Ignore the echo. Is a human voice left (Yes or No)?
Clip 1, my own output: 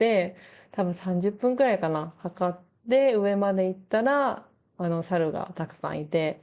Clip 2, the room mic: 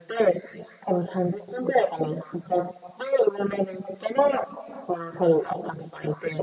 No